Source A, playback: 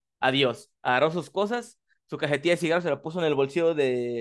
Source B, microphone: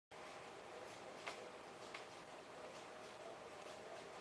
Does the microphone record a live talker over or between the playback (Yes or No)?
No